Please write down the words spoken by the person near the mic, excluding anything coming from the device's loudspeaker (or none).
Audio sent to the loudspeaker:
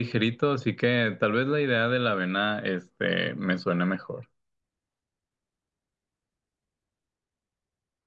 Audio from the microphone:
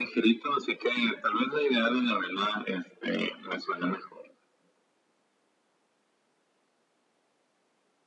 none